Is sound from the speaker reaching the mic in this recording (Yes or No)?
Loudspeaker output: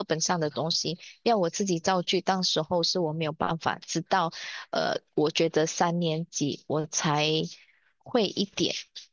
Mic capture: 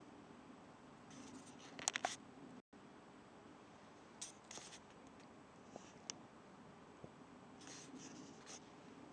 No